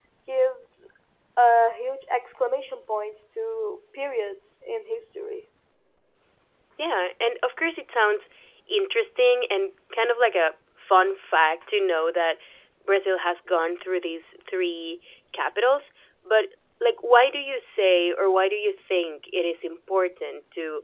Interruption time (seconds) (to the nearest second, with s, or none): none